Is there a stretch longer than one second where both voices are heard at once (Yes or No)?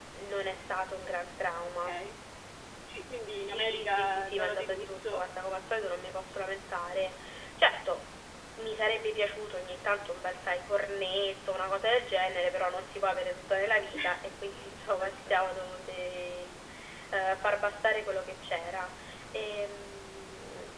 Yes